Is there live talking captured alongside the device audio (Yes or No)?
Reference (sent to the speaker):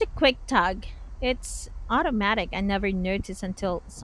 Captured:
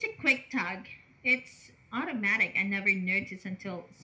No